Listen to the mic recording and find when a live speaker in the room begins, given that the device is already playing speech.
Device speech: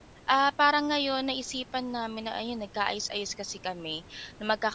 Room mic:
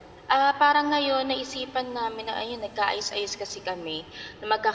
none

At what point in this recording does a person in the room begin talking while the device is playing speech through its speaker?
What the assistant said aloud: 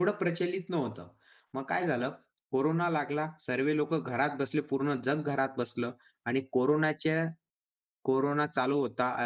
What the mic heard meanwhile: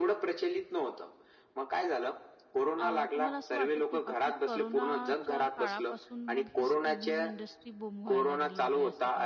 3 s

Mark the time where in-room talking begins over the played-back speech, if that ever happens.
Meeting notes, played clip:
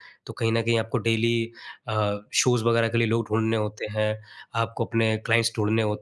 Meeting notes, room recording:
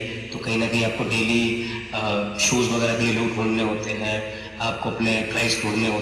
none

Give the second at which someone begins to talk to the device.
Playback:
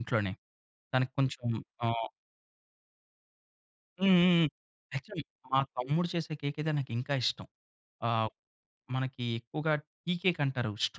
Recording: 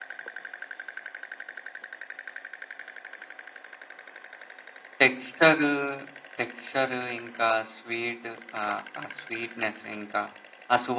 5 s

